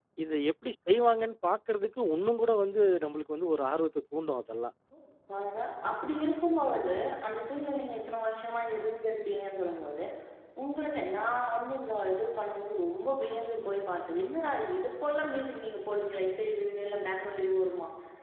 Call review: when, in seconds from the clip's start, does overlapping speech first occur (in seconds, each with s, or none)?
none